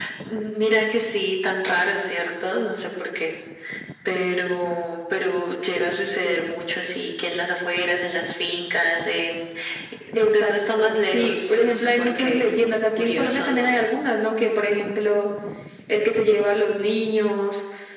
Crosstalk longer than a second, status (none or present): present